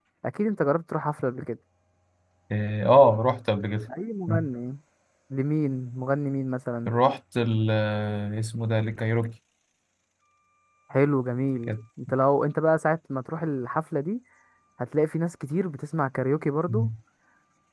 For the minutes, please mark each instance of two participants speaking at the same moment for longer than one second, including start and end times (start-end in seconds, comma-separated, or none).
none